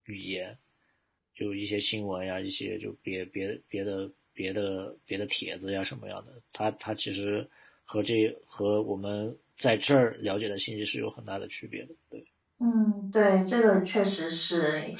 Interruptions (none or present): none